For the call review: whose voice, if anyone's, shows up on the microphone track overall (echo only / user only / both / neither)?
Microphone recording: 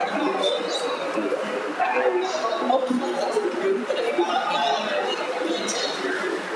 echo only